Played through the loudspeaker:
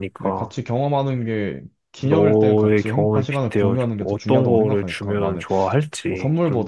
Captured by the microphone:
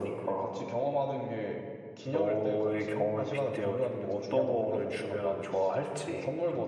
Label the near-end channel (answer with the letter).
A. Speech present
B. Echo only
B